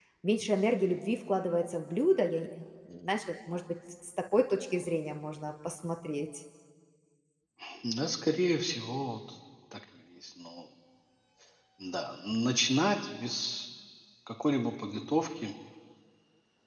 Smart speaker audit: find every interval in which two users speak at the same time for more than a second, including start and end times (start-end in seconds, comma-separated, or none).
none